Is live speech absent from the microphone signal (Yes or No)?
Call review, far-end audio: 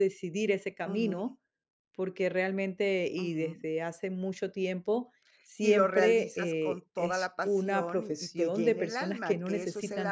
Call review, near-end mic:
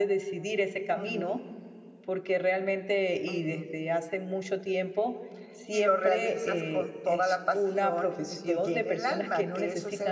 Yes